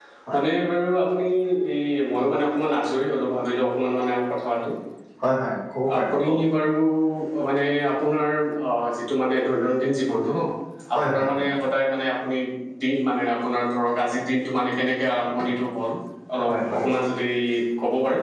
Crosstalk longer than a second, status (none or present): none